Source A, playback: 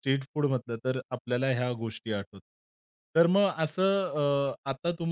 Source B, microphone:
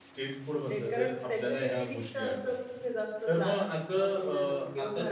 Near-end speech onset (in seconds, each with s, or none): 0.7 s